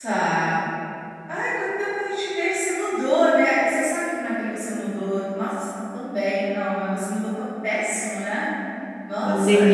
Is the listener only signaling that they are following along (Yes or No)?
No